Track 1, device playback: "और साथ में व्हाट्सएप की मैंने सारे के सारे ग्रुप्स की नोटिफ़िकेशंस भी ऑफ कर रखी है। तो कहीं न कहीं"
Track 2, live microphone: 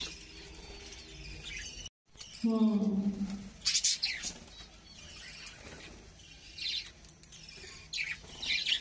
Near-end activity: present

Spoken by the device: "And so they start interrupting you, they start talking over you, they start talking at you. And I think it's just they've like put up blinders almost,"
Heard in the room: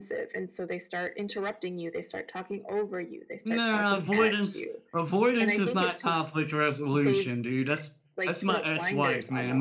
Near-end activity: present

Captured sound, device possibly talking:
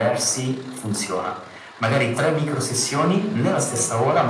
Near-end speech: none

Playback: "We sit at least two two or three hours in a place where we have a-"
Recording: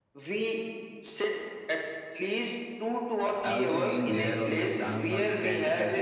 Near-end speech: present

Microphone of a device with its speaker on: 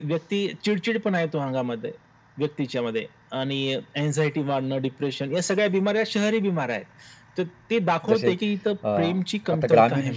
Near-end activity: present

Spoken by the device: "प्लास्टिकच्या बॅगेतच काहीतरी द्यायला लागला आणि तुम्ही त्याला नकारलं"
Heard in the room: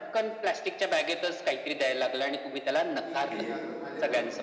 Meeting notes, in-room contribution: present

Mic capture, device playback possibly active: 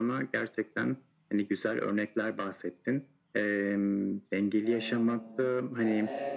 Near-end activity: present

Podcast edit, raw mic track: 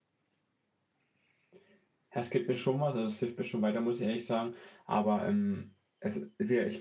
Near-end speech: present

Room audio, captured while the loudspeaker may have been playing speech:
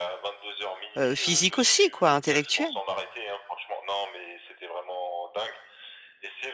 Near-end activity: present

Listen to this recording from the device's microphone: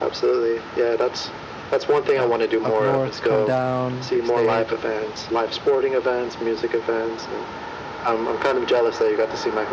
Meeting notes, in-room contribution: present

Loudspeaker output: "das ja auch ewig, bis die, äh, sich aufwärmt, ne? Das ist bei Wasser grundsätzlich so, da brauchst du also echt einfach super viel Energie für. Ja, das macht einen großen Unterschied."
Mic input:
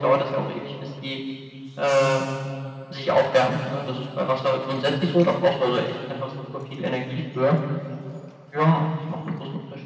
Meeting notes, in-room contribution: none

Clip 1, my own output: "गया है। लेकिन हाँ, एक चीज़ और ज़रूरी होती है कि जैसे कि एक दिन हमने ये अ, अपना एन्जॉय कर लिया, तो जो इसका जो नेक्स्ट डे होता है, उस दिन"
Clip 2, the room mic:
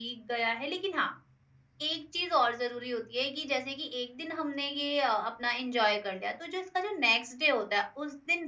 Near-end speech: none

